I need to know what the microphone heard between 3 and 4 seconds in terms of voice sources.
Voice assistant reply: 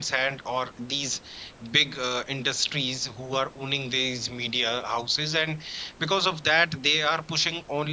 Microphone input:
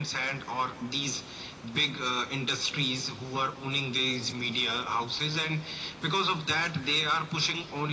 echo only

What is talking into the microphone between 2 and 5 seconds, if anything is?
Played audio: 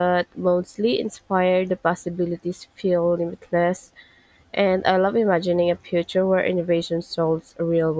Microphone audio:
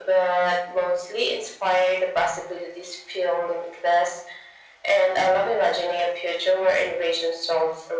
echo only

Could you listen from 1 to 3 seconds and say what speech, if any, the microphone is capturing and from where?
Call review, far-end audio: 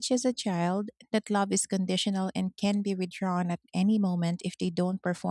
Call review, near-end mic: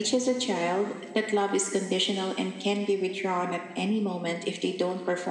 echo only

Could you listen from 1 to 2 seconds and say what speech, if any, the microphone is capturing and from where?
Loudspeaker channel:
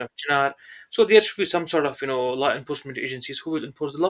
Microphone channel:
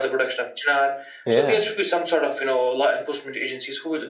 both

